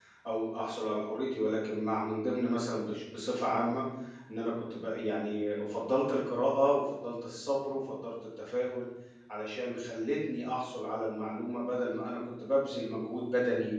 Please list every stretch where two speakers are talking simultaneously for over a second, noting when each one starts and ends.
none

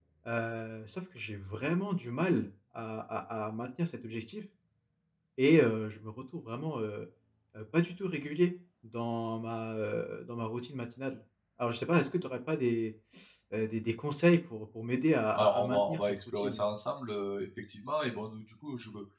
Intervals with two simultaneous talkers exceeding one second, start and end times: 15.3-16.6

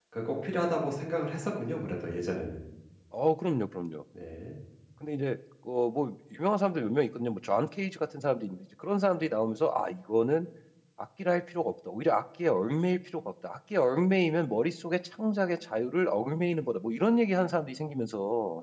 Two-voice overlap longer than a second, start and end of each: none

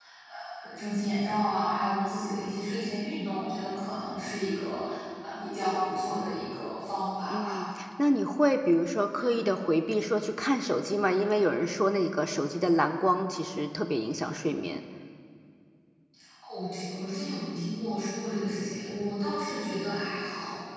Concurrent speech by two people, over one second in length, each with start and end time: none

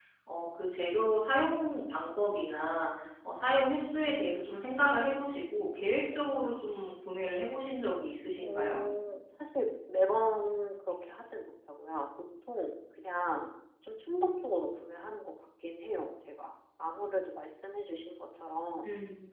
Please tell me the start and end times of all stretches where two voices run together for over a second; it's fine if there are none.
none

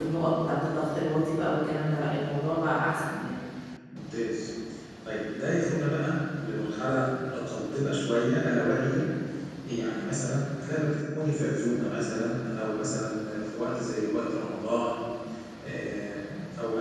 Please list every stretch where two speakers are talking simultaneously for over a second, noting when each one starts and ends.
none

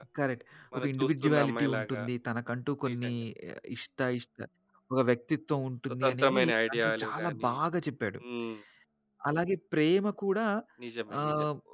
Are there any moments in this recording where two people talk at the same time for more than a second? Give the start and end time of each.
0.7-2.0, 6.0-7.5

